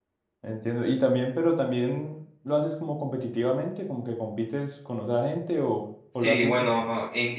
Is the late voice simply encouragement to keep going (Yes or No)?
No